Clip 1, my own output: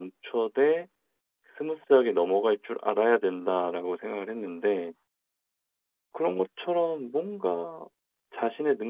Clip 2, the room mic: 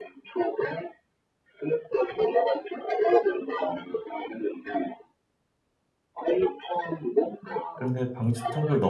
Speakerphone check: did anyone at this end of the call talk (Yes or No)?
Yes